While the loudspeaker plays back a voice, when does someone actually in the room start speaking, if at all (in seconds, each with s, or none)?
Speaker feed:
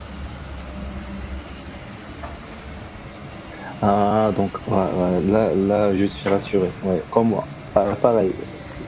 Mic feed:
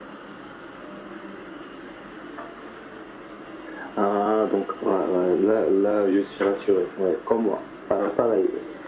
none